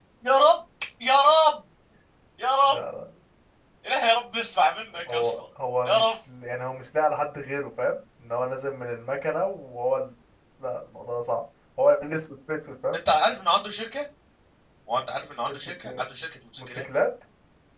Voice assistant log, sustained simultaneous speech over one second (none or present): none